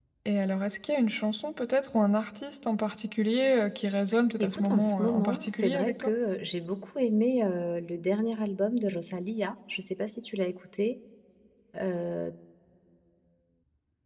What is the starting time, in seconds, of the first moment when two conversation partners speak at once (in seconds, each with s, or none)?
4.4 s